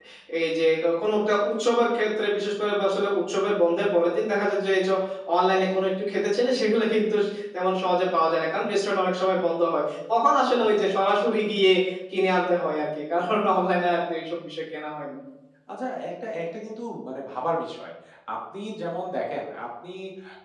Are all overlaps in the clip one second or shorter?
Yes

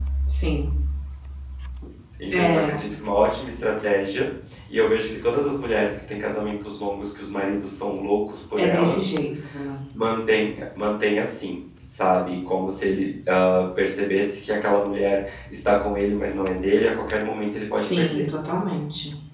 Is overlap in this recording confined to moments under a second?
Yes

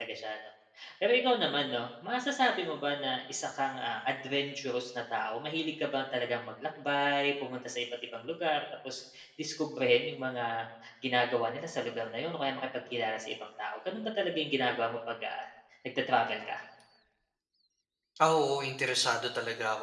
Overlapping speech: No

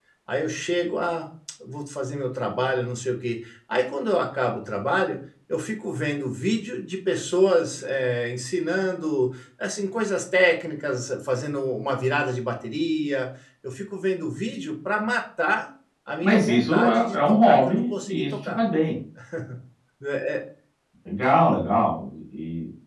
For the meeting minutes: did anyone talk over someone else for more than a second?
Yes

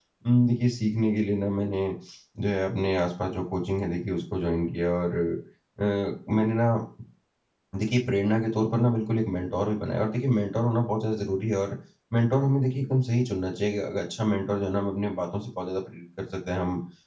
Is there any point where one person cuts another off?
No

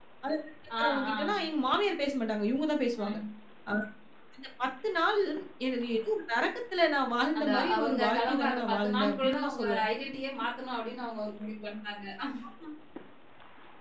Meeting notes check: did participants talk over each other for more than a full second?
Yes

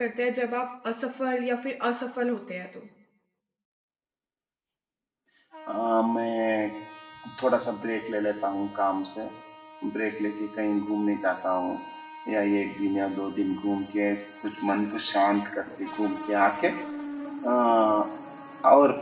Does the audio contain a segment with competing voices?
No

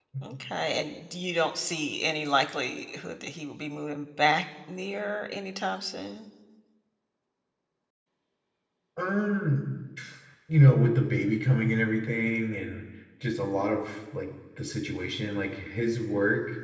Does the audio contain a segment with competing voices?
No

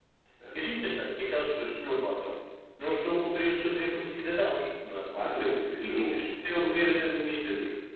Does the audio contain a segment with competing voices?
Yes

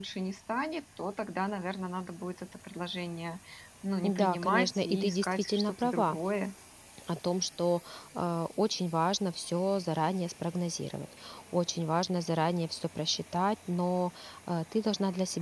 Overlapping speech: Yes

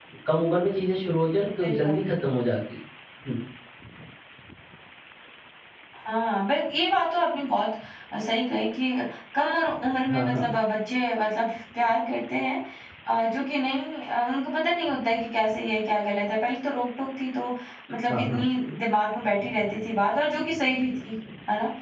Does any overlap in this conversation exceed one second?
No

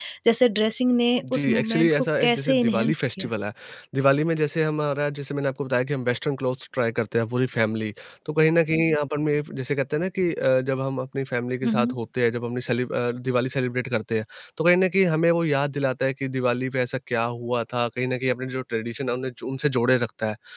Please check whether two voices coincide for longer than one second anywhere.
Yes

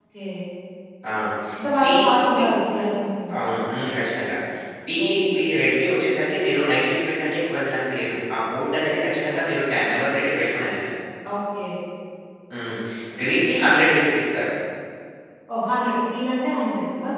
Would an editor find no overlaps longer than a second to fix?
Yes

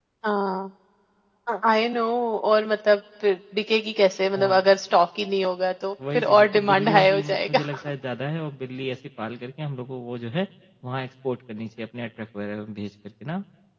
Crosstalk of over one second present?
Yes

